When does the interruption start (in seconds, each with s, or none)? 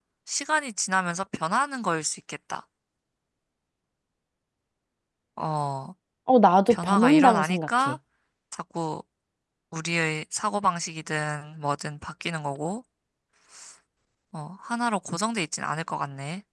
6.7 s